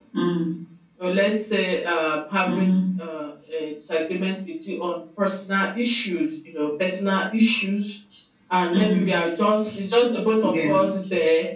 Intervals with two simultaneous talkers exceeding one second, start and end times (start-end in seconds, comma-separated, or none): none